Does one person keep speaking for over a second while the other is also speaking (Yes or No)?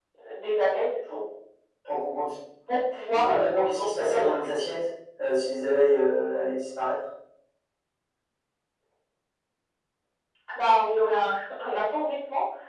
Yes